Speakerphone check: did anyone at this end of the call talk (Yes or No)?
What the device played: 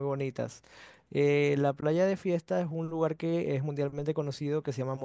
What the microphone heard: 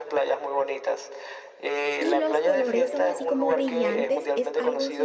Yes